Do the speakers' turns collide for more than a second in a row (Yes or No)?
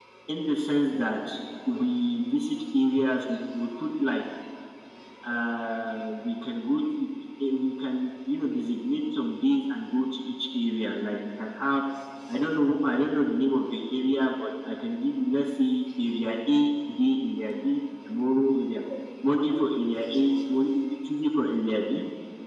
No